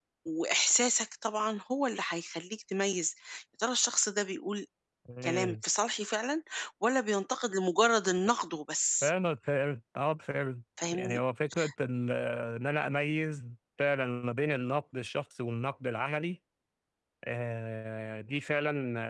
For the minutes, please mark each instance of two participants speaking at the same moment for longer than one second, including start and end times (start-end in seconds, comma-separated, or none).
none